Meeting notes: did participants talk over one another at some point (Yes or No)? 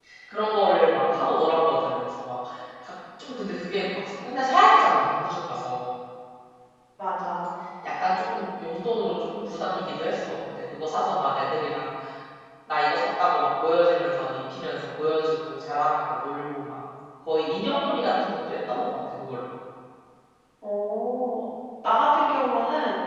No